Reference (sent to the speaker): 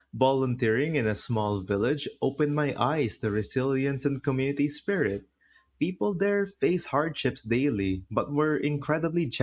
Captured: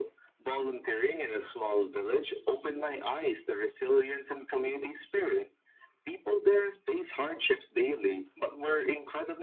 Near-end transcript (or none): none